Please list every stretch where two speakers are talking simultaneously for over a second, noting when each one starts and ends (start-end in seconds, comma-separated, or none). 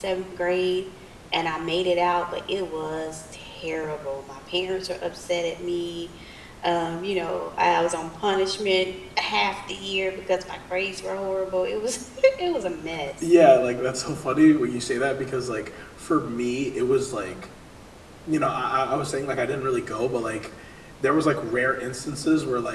none